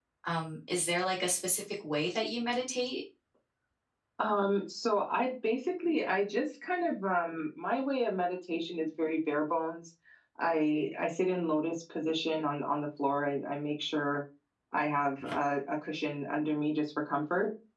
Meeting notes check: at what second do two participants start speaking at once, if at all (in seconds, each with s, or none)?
none